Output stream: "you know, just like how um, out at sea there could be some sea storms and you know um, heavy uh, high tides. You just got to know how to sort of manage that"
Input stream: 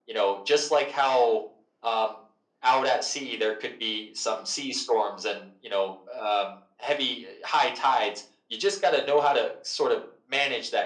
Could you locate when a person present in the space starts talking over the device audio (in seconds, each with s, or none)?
none